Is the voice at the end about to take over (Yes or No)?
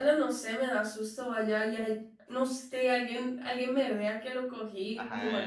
Yes